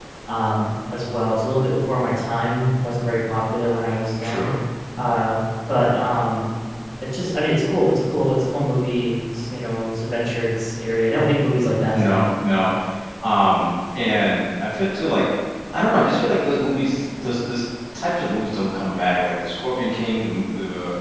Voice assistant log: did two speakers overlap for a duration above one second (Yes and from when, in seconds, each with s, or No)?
No